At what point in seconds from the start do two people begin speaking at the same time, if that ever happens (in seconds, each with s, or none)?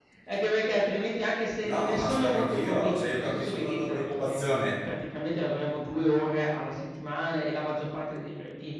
1.6 s